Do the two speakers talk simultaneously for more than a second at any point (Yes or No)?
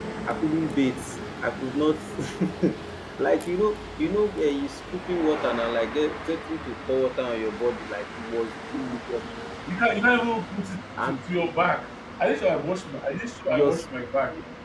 No